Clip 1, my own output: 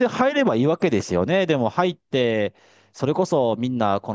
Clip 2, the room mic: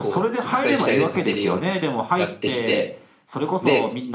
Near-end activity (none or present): present